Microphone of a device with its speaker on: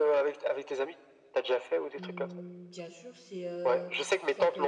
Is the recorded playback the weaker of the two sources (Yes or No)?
No